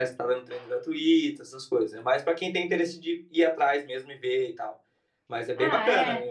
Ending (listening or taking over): taking over